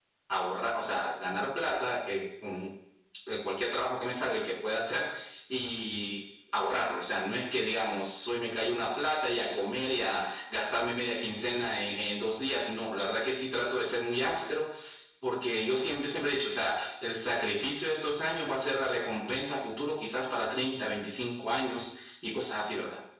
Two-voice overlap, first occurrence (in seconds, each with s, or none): none